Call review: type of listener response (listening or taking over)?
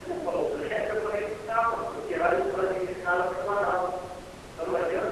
listening